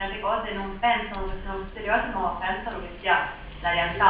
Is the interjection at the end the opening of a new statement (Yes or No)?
No